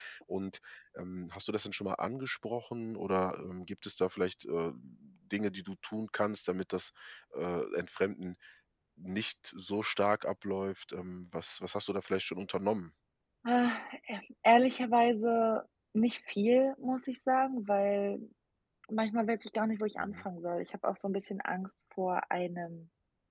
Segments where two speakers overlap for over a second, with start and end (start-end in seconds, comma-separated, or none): none